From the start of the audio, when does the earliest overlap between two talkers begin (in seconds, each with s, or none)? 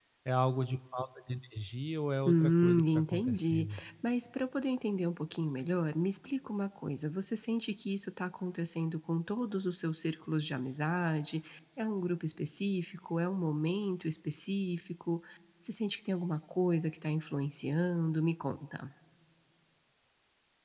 2.3 s